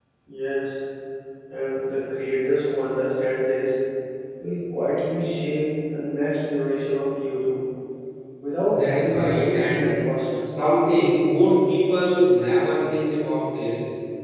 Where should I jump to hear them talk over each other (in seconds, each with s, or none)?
8.6 s